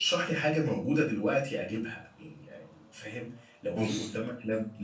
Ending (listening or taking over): listening